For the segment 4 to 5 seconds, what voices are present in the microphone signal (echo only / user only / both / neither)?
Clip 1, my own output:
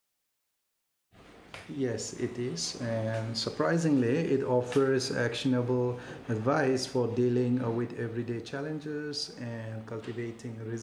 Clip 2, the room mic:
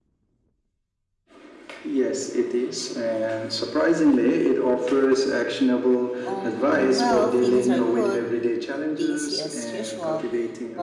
echo only